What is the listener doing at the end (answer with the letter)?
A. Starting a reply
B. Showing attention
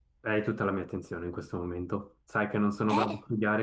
B